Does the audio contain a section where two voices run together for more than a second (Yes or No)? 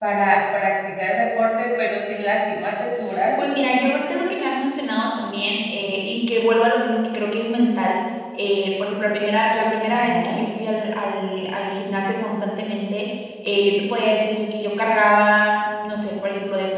No